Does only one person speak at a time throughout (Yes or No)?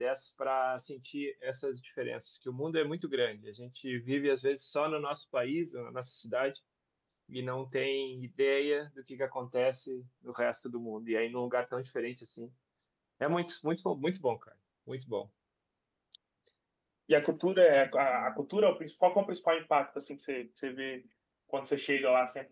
Yes